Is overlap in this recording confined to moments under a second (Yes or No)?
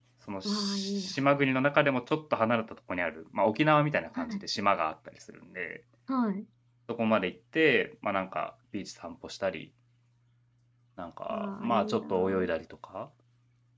No